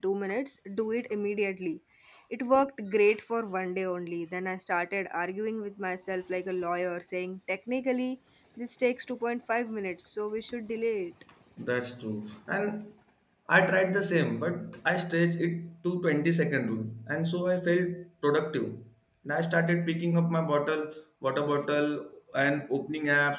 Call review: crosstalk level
none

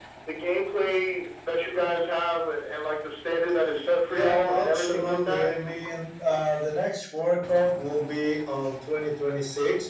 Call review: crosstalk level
present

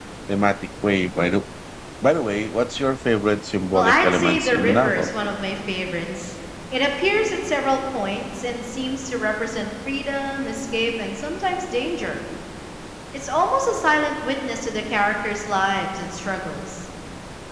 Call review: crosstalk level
present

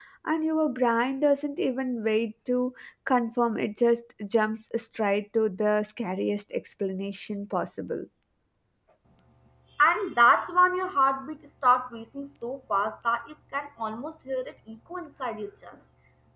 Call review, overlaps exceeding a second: none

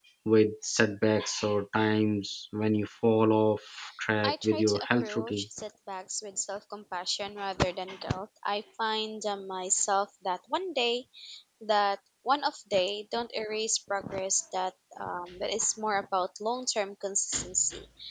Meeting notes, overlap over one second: present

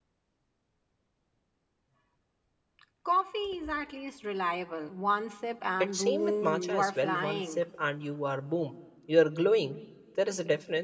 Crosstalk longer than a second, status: present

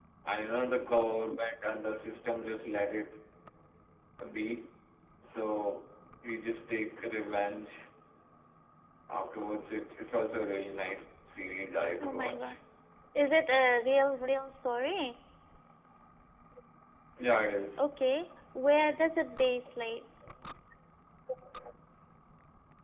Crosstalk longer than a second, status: none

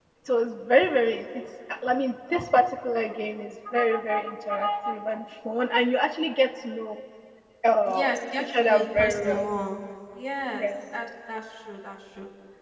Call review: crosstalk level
present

